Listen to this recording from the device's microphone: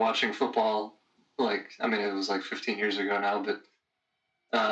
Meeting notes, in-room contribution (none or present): none